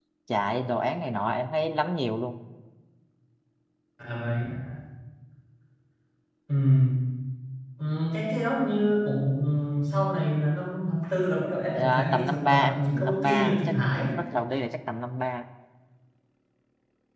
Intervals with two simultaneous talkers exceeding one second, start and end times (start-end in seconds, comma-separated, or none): 11.8-13.8